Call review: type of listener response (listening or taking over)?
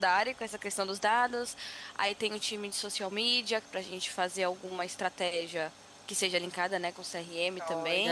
taking over